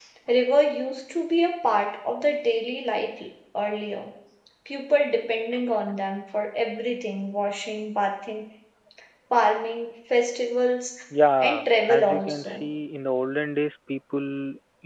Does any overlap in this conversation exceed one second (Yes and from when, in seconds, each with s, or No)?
Yes, from 11.4 s